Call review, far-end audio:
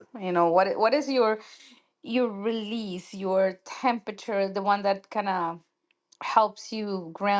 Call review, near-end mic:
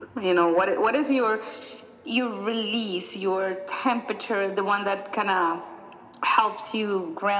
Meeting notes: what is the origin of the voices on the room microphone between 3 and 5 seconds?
echo only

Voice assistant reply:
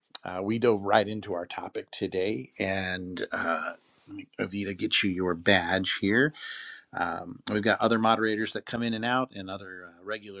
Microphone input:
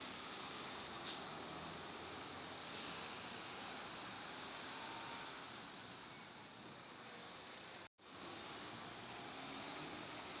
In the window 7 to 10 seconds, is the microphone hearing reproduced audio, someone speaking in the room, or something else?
neither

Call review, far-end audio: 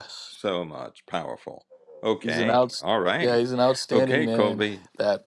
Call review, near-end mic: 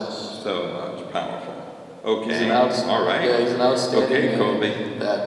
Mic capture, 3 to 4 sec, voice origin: echo only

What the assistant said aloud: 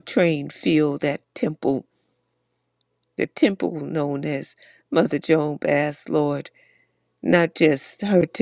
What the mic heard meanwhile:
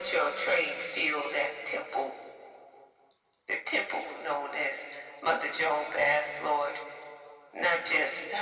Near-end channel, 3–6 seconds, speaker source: echo only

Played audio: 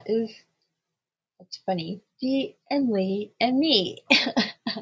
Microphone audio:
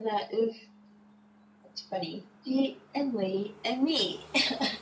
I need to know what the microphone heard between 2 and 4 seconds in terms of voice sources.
echo only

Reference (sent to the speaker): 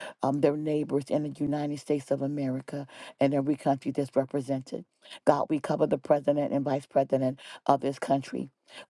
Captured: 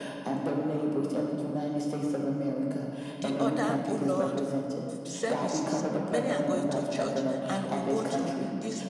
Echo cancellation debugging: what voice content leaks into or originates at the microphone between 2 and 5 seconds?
both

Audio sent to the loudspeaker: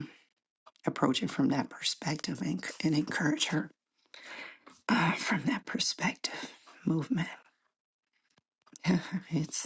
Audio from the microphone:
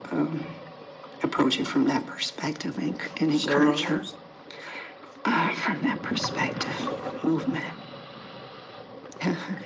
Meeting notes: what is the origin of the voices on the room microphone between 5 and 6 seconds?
echo only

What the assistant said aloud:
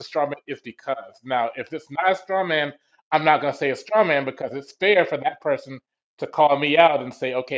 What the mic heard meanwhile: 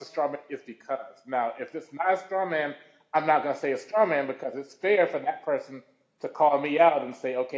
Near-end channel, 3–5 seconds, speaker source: echo only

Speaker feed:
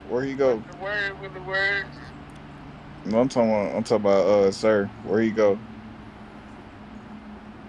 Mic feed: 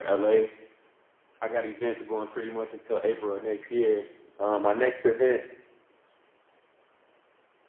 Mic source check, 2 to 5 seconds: user only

